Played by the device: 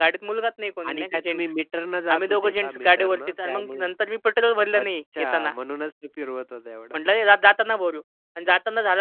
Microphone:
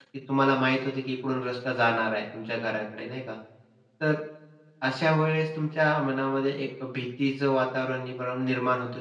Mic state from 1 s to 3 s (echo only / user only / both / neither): user only